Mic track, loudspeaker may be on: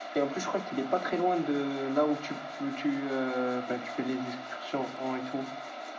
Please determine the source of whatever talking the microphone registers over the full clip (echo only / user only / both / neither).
echo only